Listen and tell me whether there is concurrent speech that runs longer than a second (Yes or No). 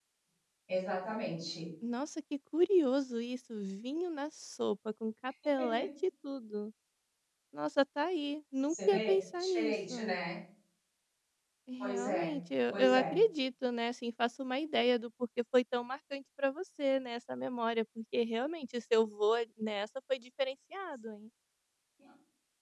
Yes